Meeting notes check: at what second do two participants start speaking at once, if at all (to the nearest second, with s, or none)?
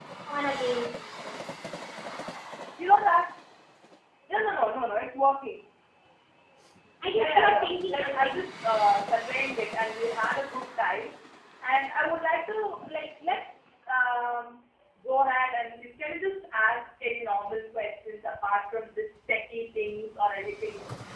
7 s